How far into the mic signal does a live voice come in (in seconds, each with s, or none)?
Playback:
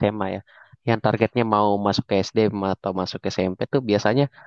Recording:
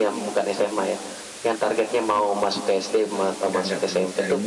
3.2 s